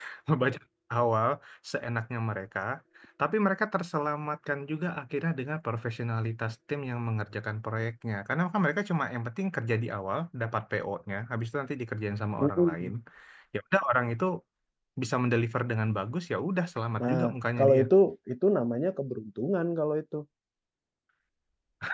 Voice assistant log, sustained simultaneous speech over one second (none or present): none